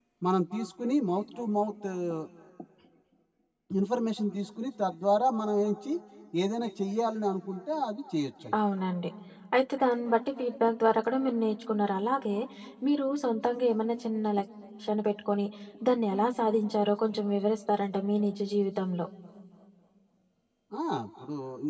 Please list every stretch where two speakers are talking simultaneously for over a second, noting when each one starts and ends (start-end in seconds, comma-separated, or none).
none